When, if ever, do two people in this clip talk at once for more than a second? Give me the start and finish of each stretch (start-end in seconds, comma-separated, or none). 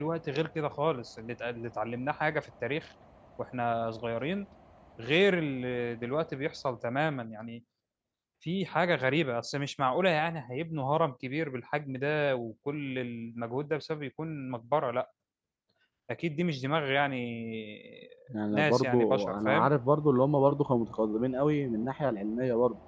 18.5-19.7